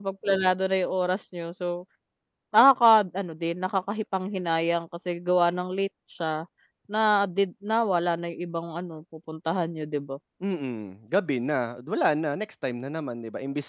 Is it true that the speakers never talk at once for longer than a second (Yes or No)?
Yes